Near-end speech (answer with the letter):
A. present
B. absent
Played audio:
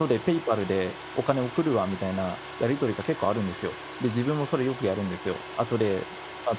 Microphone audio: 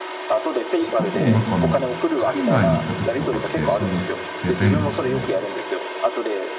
A